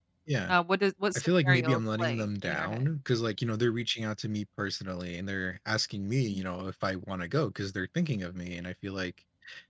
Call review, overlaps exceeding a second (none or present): present